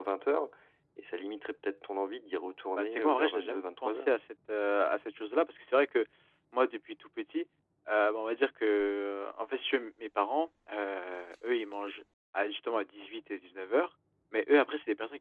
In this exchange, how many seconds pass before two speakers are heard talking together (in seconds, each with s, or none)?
2.8 s